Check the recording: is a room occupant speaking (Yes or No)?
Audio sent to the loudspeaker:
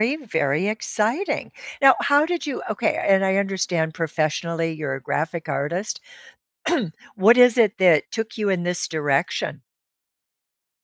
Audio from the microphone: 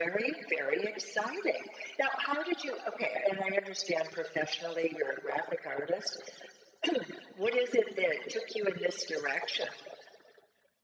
No